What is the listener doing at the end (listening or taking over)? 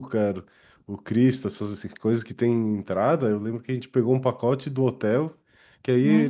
listening